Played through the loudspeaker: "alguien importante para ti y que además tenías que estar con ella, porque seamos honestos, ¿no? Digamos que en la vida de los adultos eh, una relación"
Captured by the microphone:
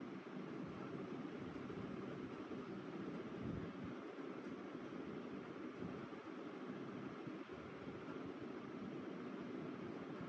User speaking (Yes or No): No